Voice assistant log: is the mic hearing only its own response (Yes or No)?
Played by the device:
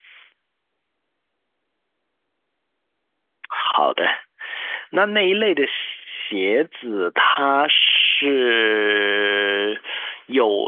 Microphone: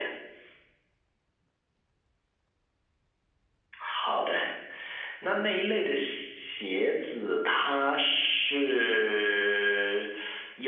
Yes